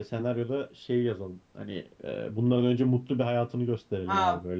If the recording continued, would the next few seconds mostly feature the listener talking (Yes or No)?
Yes